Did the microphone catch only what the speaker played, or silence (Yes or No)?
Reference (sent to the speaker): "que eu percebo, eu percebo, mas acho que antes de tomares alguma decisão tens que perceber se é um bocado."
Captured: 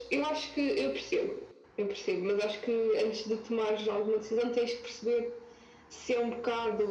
Yes